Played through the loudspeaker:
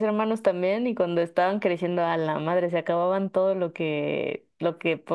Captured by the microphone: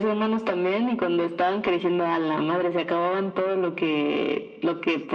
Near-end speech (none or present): none